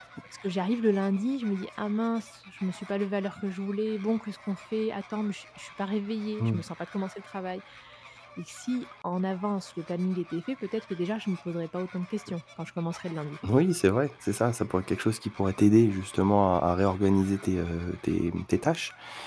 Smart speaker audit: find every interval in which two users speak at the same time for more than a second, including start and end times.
none

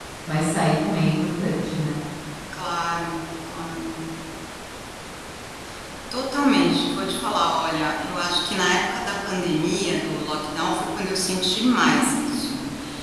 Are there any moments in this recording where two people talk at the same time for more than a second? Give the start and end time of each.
none

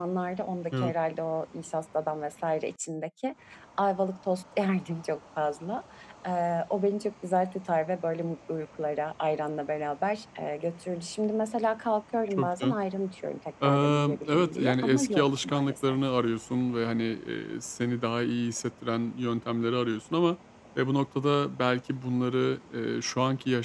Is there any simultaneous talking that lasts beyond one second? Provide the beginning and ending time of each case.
13.6-16.0

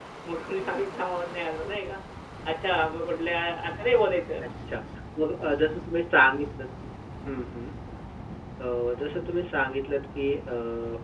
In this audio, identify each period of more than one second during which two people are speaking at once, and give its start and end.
none

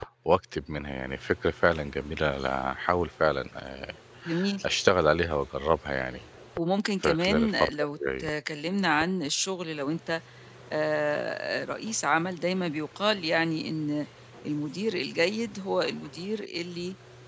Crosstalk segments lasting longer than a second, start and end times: 7.0-8.3

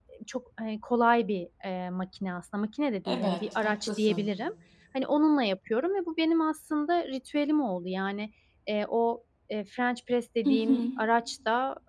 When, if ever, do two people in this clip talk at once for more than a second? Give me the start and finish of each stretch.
3.0-4.3

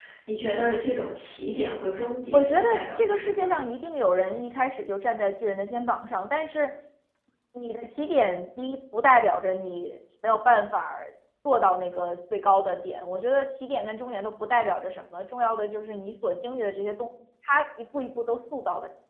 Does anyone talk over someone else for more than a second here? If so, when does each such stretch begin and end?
2.3-3.6

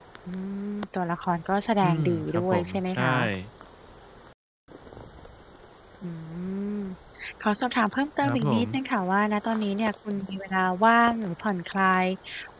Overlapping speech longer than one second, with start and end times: 1.8-3.2

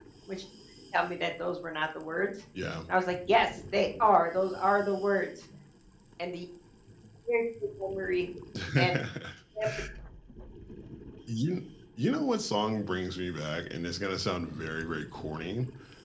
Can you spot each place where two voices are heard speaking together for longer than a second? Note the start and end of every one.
none

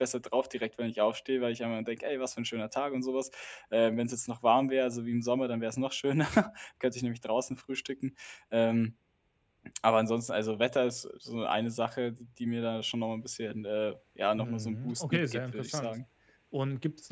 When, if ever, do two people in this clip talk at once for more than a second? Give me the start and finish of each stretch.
14.4-15.9

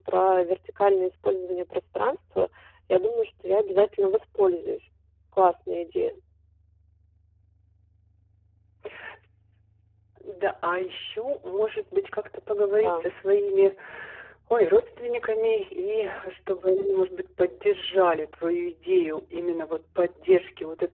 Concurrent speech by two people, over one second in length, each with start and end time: none

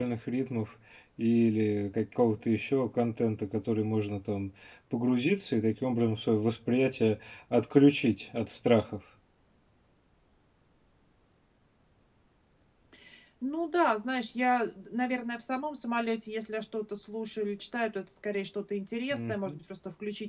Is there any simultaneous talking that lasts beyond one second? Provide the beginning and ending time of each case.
none

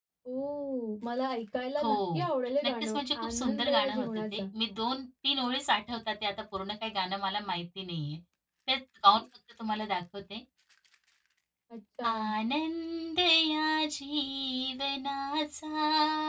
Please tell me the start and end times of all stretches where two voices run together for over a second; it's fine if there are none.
2.6-4.4

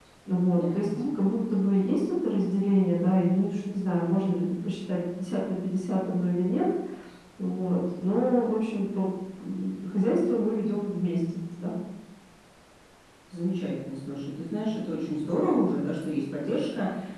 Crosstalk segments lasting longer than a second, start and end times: none

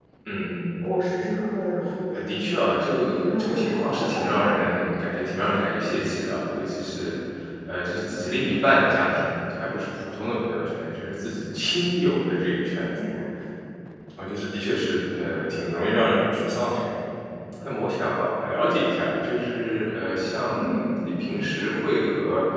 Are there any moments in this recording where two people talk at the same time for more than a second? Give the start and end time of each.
2.1-4.6

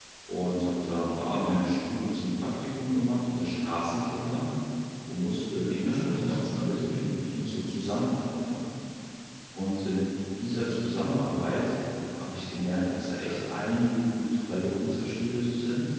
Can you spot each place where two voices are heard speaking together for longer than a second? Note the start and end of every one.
5.8-7.0

